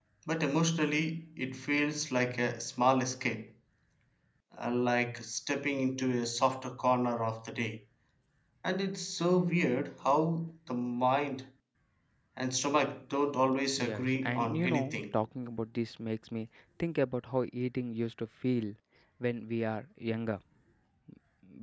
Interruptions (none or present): present